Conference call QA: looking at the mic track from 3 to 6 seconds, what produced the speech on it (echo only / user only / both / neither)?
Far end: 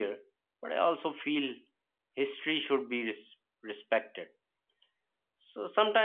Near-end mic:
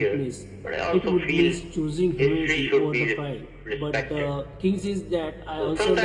both